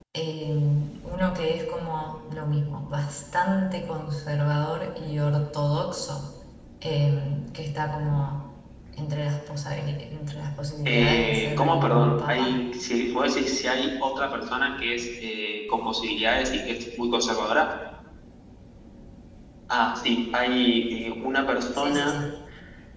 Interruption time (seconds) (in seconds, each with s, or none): 10.8 s